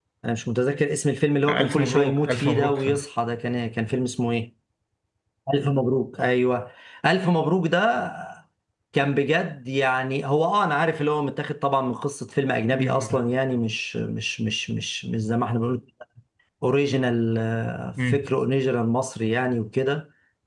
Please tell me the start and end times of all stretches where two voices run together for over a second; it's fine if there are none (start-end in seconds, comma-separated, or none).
1.5-3.0